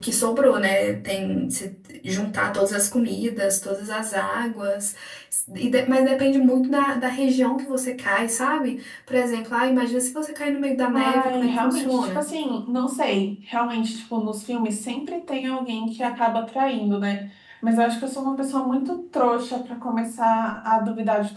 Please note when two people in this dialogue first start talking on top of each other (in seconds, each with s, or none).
10.9 s